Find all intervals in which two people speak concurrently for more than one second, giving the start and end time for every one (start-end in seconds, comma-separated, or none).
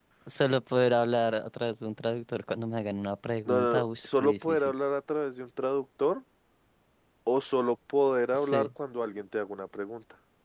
3.5-4.7